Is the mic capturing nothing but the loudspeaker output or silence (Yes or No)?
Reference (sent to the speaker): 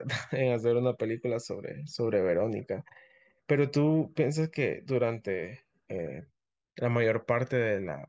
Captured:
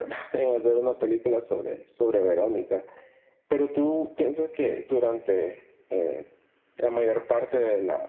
Yes